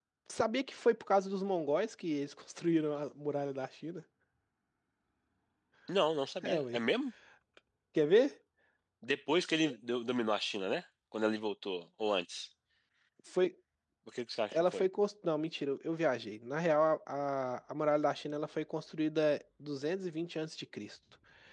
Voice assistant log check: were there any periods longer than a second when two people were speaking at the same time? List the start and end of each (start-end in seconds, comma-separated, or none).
none